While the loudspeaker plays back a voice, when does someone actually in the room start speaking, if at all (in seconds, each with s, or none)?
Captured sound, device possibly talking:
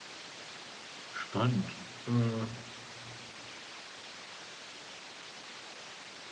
1.1 s